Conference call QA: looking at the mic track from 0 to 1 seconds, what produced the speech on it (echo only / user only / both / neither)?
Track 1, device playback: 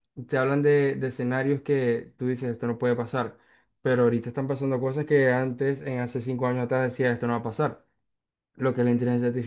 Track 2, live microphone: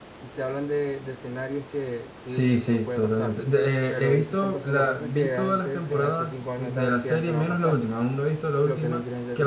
echo only